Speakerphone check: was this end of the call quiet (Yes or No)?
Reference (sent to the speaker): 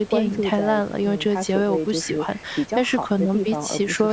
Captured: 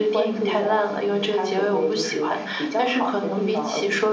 Yes